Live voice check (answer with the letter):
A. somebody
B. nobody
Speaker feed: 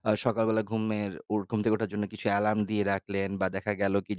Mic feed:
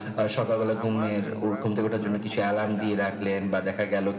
A